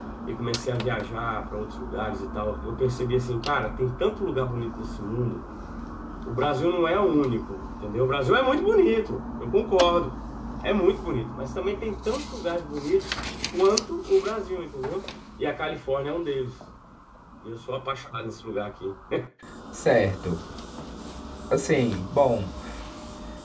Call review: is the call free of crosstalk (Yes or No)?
Yes